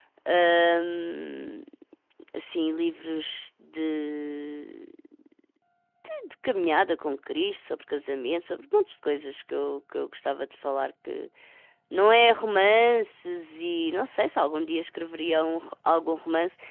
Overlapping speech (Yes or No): No